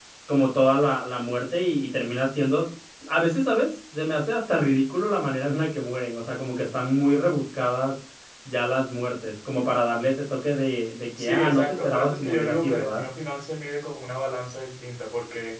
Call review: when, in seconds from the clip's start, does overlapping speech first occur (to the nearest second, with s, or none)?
11 s